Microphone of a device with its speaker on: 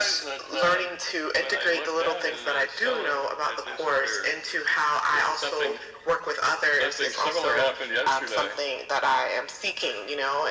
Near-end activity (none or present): none